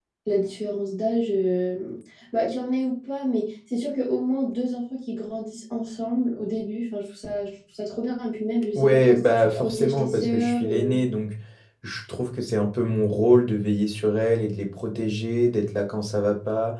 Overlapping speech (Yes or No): Yes